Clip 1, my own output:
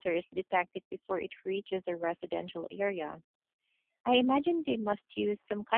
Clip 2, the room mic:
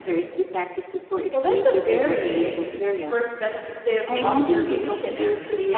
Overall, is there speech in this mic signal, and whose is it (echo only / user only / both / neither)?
both